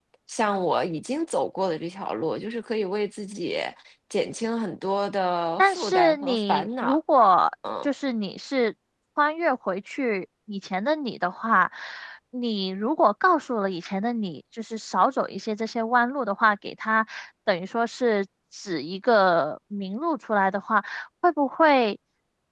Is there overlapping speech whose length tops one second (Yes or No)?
Yes